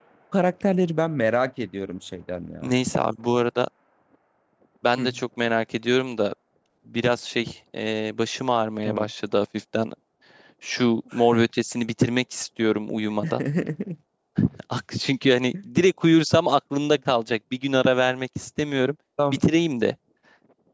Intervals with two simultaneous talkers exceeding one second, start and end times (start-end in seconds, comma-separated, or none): none